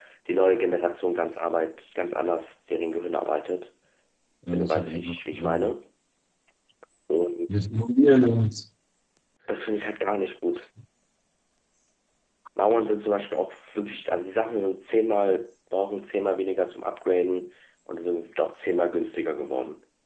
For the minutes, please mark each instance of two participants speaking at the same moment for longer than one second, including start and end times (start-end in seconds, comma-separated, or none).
4.5-5.7